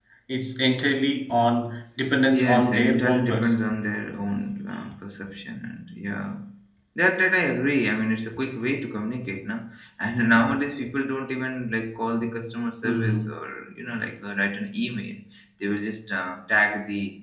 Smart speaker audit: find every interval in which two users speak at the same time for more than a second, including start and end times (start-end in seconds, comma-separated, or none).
2.3-3.6